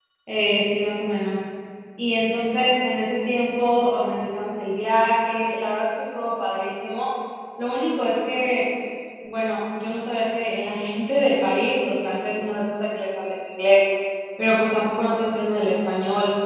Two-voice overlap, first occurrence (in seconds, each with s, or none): none